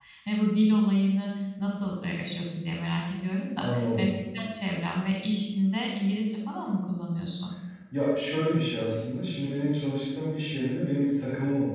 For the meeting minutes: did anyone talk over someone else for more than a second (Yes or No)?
No